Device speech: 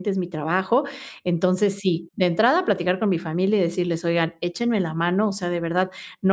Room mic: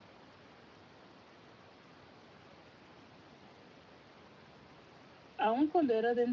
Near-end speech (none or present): present